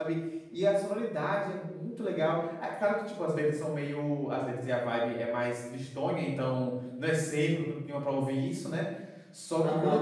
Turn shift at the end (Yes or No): No